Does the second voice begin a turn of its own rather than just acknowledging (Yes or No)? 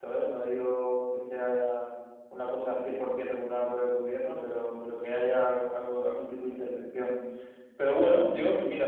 No